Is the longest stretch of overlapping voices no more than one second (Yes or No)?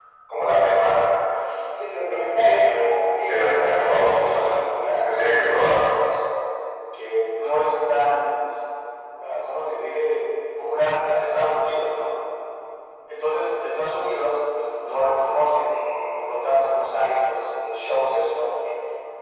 No